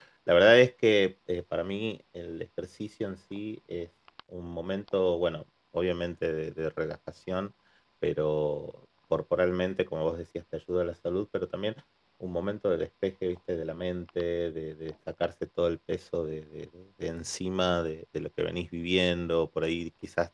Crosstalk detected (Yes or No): No